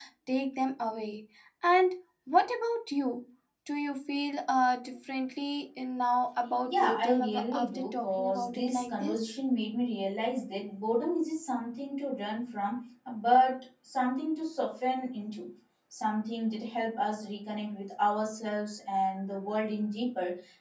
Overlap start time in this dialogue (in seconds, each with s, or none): 6.6 s